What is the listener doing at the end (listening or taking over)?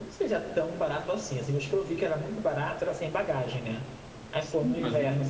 taking over